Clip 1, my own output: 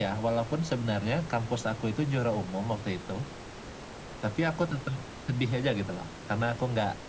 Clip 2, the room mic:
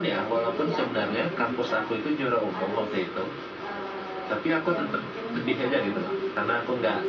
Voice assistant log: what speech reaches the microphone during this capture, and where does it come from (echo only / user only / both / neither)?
both